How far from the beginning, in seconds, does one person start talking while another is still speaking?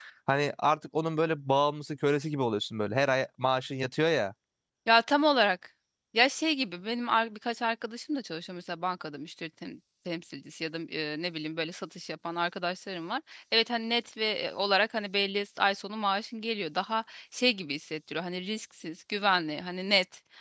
none

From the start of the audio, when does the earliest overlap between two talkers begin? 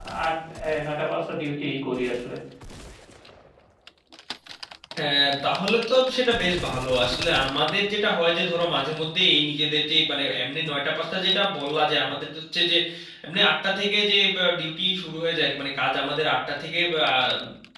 none

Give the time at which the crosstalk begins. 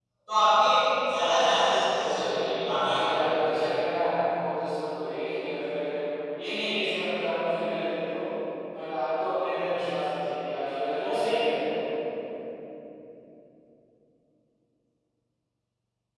1.9 s

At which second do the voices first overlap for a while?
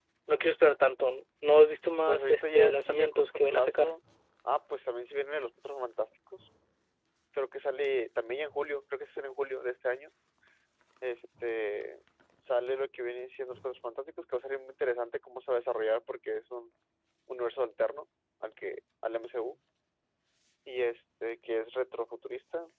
2.1 s

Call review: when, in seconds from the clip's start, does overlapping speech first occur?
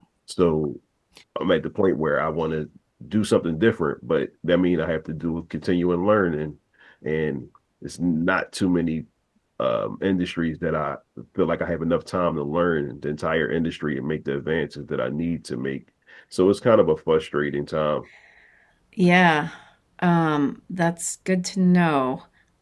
none

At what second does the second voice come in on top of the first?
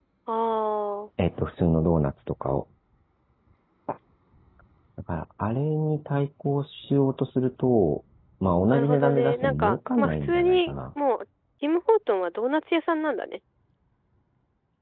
8.7 s

